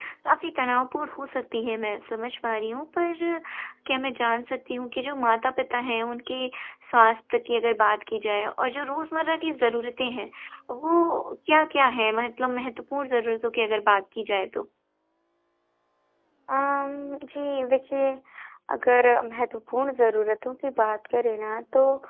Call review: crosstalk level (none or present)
none